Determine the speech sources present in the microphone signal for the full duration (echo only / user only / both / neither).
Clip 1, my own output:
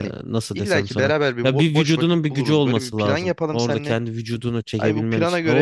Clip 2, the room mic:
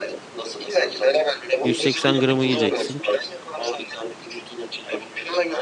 both